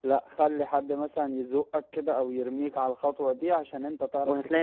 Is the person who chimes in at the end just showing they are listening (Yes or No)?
No